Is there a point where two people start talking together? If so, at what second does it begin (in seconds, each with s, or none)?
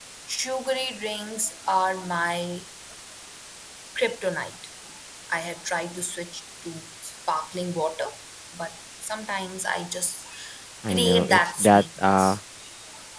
10.9 s